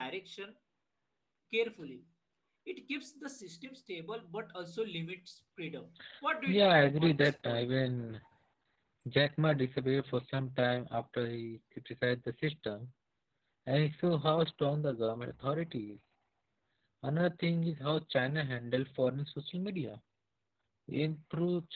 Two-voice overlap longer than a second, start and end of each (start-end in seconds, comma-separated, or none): 6.5-7.7